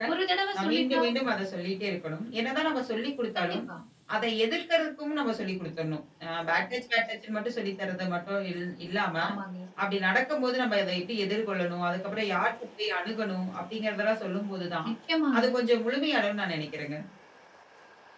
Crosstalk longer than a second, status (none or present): none